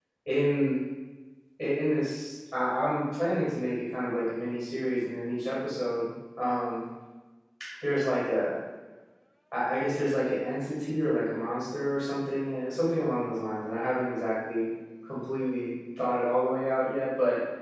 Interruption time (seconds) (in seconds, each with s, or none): none